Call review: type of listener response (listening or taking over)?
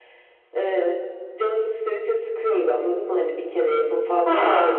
taking over